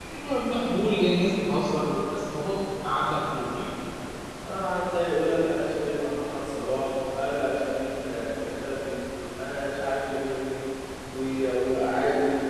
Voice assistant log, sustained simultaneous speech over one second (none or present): none